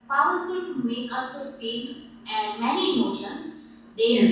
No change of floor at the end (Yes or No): Yes